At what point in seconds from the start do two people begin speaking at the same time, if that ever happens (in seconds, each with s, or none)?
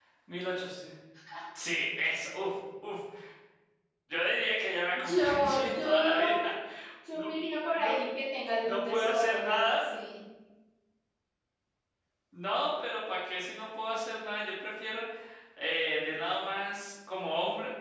4.9 s